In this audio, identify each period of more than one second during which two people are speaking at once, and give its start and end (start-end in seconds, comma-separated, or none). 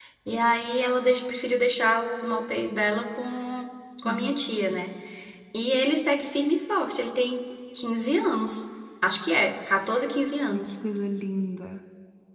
none